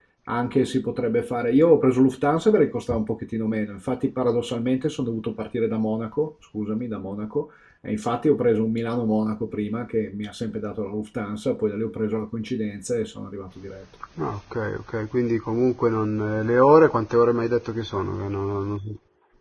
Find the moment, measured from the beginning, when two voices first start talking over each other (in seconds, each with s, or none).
none